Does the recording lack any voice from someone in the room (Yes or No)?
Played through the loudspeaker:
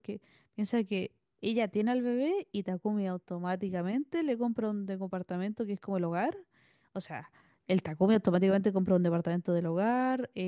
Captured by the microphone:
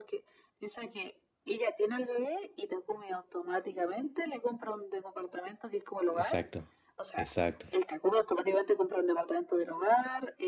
No